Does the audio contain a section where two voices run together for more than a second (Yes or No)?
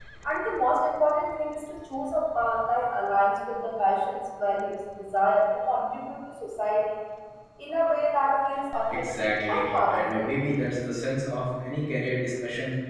Yes